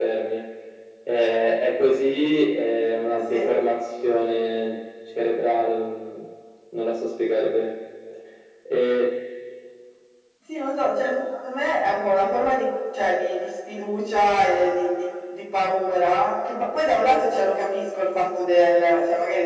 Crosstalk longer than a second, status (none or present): none